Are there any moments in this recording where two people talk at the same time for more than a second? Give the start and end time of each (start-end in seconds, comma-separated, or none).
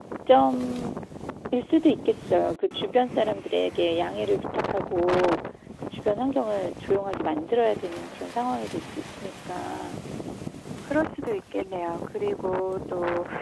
none